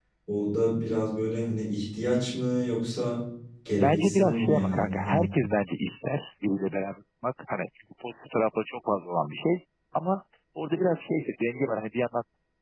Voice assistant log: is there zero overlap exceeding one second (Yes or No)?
No